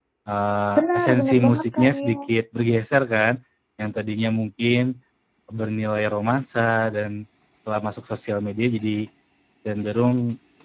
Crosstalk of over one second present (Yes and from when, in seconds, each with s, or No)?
Yes, from 0.8 s